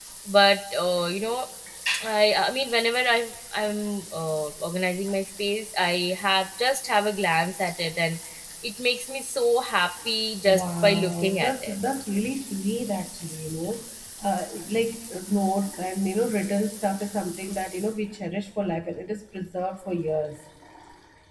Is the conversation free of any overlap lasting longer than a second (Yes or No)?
No